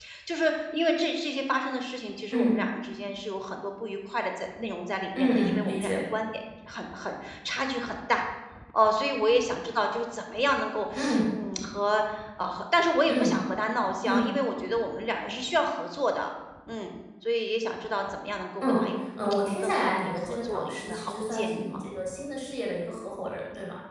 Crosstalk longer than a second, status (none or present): present